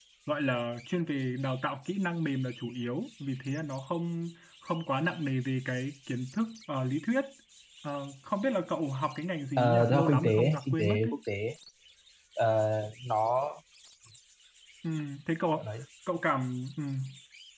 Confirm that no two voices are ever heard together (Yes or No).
No